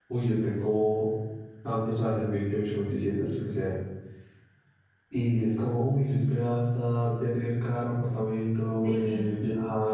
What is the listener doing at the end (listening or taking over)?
listening